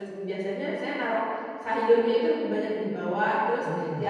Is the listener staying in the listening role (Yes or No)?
Yes